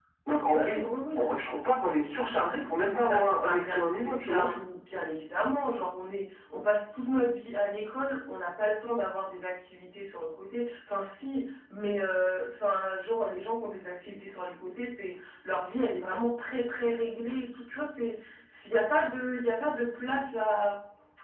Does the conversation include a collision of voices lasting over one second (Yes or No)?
Yes